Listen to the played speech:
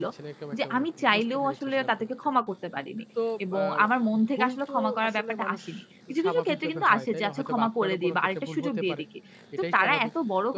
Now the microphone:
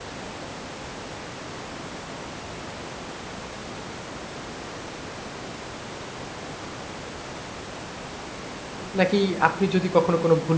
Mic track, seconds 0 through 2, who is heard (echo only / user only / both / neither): neither